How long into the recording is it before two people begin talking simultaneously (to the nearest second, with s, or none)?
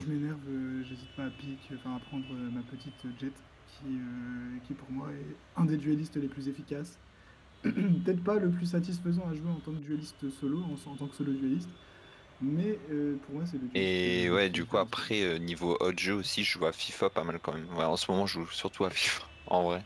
14 s